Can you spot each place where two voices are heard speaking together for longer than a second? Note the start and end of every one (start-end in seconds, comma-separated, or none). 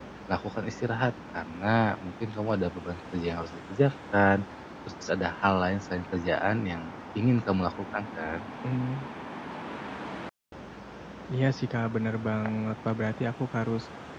none